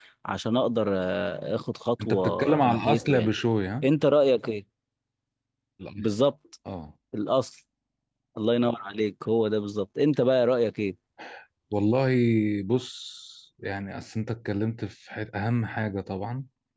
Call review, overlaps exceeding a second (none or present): present